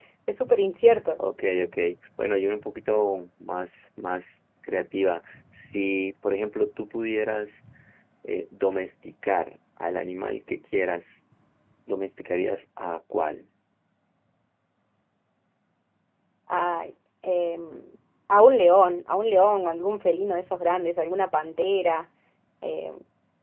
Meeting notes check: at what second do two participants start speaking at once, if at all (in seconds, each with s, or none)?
none